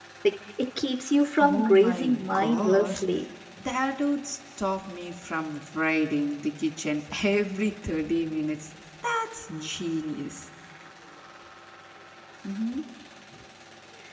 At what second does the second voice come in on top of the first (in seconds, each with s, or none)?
1.4 s